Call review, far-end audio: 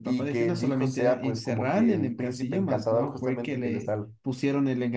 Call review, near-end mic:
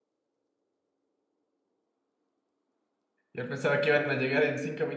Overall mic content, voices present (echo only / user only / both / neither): user only